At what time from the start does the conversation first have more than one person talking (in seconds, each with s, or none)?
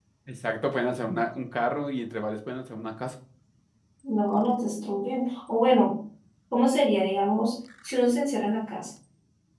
none